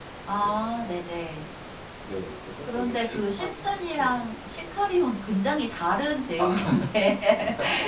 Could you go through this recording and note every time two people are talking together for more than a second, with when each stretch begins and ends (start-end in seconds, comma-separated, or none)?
2.6-4.2